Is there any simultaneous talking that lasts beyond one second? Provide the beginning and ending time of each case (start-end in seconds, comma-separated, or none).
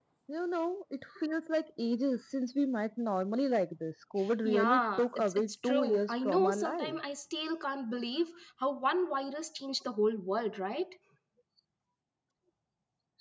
4.4-6.9